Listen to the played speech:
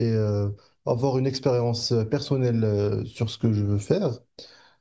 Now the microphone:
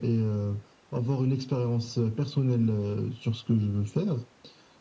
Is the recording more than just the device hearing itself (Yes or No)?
No